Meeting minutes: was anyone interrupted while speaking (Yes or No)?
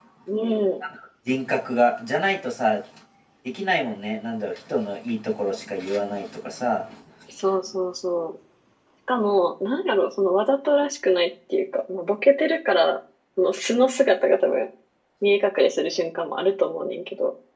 No